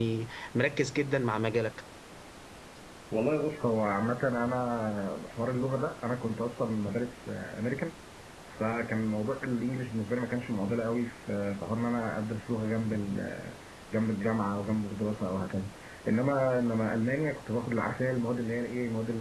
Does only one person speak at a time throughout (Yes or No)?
Yes